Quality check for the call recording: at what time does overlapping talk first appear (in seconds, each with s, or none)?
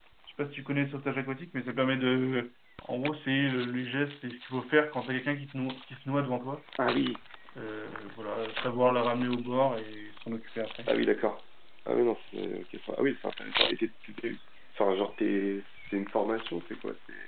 none